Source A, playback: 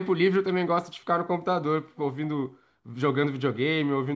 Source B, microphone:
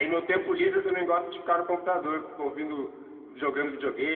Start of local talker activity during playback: none

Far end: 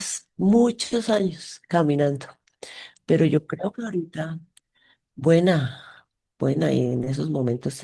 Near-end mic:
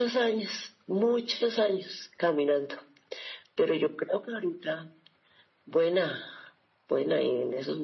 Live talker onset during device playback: none

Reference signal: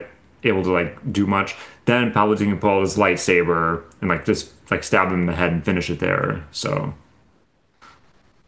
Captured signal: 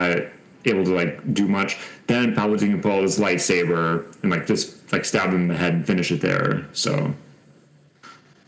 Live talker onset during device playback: none

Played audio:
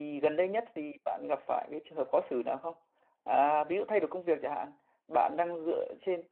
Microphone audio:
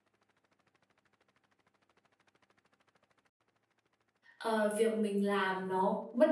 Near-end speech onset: 4.4 s

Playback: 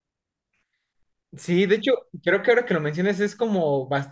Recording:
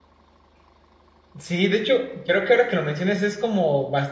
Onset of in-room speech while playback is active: none

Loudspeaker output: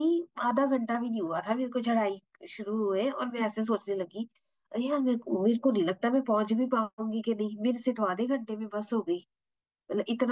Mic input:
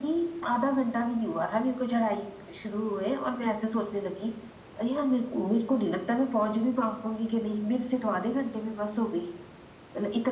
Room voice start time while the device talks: none

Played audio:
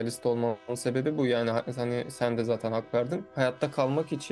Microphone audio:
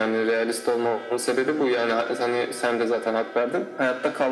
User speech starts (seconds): none

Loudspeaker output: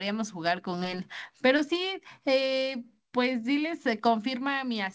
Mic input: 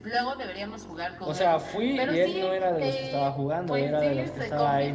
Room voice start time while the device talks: 1.2 s

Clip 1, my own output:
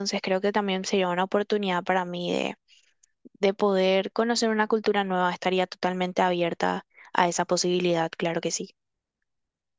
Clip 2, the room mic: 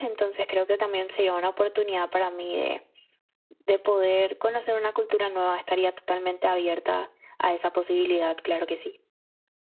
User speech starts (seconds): none

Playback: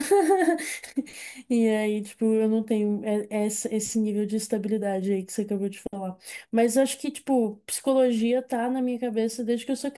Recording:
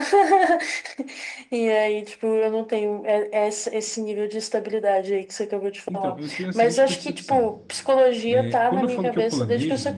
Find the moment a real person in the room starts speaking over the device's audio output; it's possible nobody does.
5.9 s

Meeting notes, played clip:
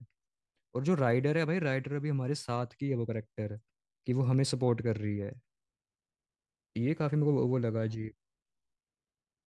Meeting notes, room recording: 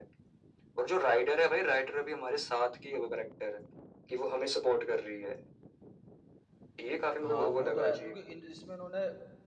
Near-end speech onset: 7.2 s

